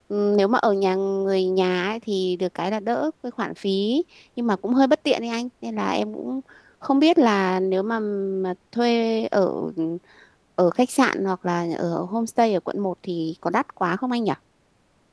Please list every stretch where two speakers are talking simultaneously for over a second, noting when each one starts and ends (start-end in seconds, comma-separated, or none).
none